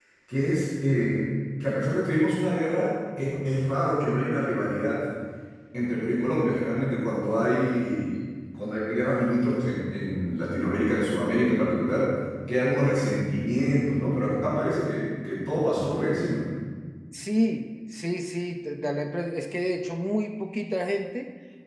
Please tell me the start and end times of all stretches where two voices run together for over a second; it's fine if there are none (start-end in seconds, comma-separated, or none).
none